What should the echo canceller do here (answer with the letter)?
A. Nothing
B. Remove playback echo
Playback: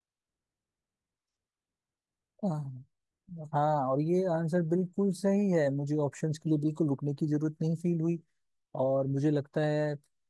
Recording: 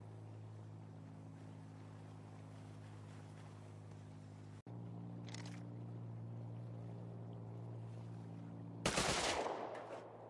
A